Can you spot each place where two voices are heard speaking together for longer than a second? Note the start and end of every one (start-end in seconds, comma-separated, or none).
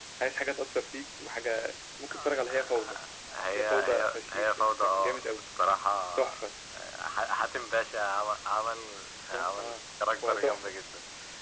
3.6-5.3